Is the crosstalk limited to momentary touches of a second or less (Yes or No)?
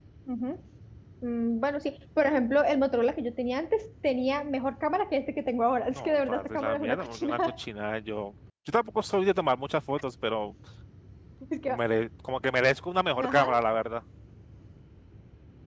No